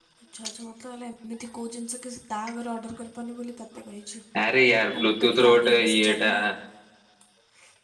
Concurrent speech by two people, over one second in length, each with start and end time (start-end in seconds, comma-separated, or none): 4.9-6.3